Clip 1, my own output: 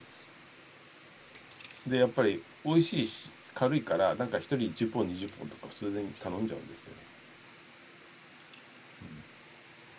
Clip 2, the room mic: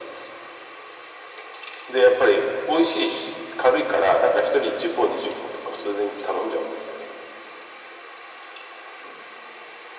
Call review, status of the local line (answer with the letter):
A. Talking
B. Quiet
B